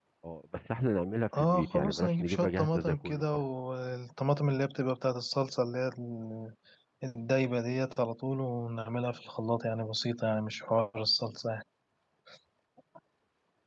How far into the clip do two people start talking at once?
1.3 s

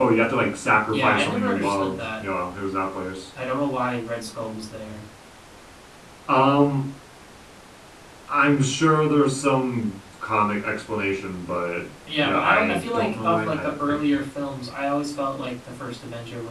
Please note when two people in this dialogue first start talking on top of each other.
0.9 s

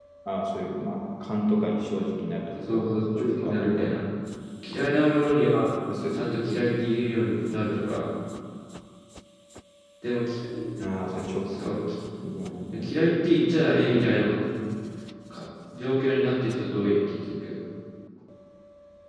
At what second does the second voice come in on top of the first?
2.5 s

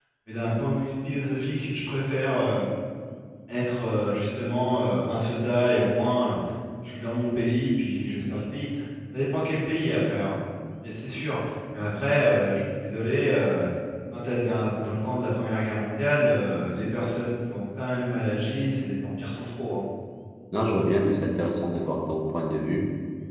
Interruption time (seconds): none

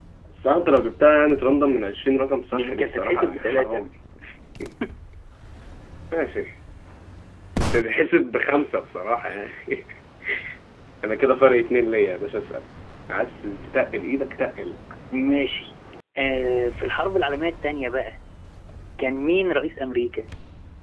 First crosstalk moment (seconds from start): 2.5 s

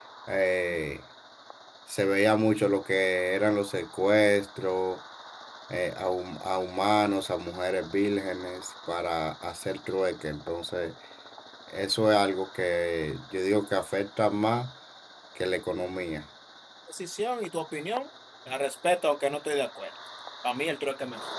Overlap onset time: none

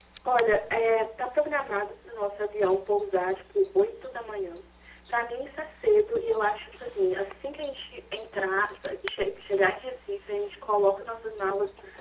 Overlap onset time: none

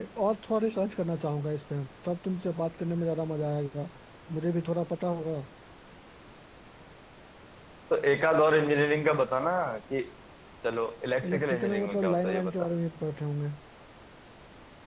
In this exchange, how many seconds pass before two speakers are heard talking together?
11.3 s

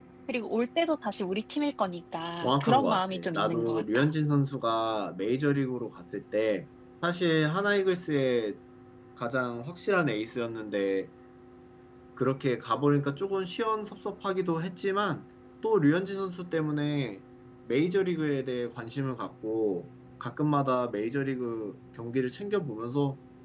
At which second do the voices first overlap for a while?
2.4 s

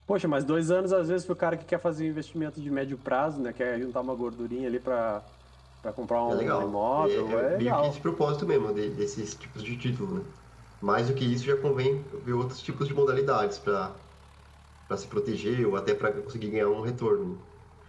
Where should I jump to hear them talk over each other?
6.3 s

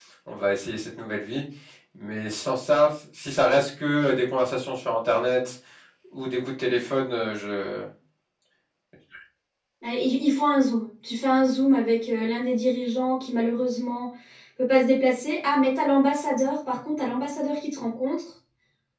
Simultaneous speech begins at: none

